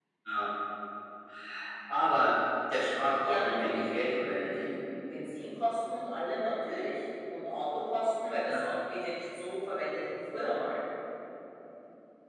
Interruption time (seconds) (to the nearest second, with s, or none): 3 s